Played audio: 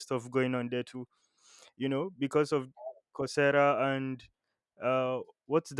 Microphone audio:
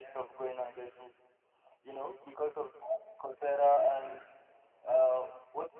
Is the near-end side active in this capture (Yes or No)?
Yes